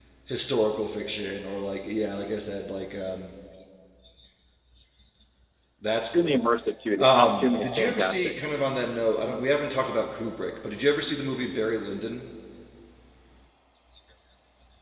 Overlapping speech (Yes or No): Yes